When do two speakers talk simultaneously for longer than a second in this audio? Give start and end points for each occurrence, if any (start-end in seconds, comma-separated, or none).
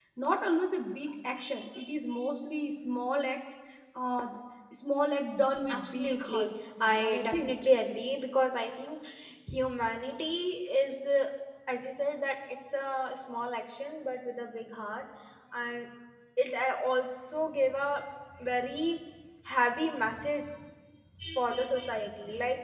5.7-7.5